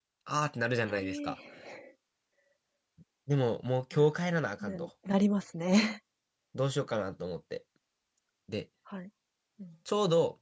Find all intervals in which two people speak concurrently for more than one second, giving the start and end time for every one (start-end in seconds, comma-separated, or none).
none